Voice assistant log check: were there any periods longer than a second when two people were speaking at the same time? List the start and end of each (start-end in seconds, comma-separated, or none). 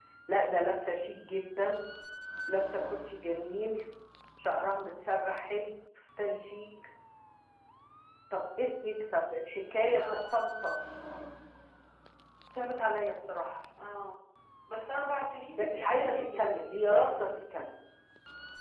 15.5-17.1